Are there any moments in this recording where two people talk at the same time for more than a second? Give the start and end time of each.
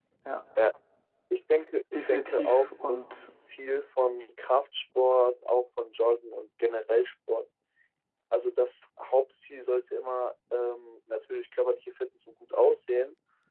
2.1-3.3

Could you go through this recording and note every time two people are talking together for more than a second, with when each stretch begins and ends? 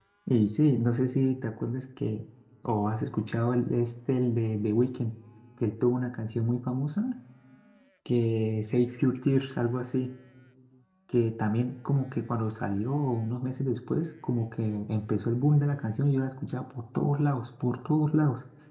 none

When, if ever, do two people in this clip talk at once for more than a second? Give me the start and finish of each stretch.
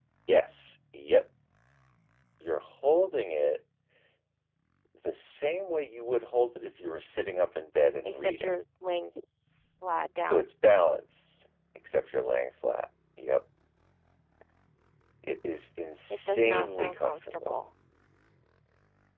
16.1-17.6

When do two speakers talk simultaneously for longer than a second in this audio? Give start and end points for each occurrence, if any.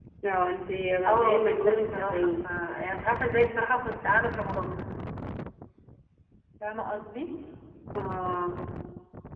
1.1-2.5

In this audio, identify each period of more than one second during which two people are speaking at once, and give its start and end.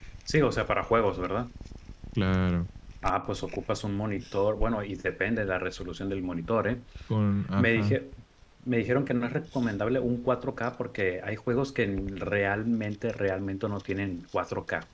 none

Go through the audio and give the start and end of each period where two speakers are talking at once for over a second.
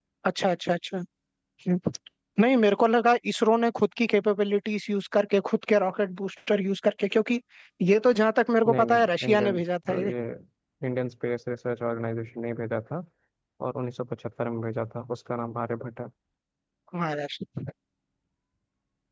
8.7-10.1

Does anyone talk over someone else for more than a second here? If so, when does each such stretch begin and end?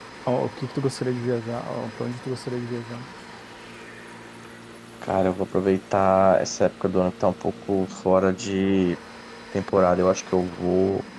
none

